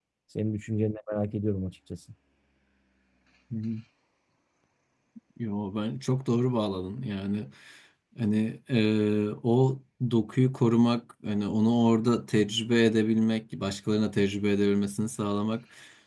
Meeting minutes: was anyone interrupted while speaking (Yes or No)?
No